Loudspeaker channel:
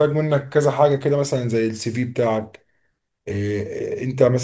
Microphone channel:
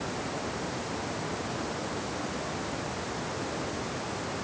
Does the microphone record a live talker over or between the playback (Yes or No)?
No